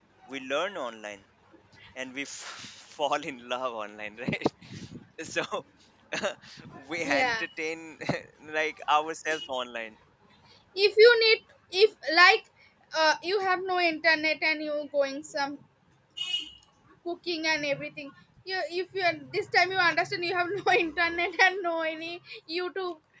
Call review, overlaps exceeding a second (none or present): none